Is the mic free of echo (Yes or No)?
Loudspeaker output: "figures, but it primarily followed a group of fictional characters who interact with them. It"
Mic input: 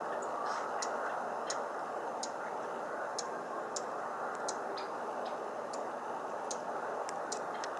Yes